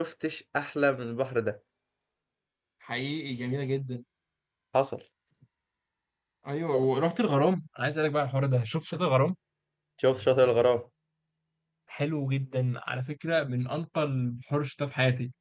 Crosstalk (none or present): none